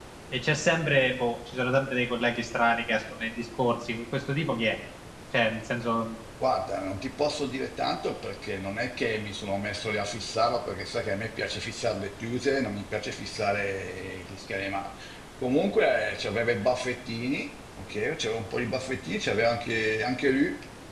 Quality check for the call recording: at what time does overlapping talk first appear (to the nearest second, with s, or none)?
none